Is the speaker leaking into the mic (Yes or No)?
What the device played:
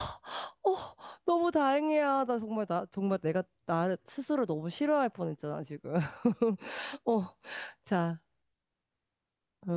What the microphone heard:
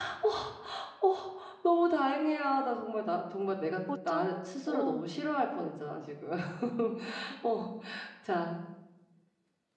Yes